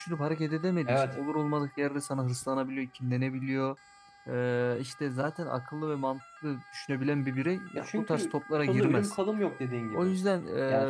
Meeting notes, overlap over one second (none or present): present